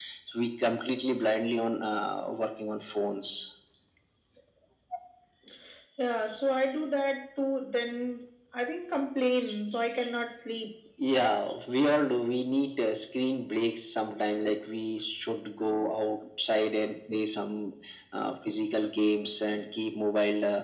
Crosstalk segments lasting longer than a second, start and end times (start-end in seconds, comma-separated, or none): none